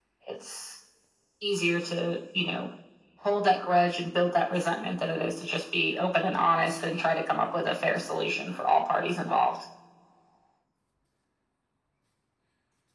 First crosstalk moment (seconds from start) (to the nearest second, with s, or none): none